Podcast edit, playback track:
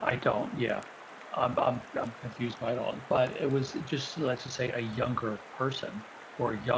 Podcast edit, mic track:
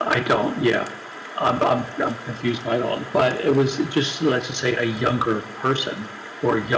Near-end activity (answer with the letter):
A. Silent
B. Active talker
A